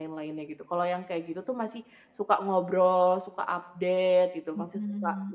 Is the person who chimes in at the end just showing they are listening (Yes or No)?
Yes